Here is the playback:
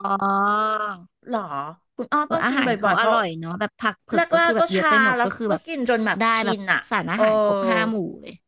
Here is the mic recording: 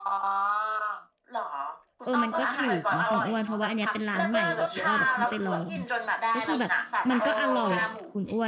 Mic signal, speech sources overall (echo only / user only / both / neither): both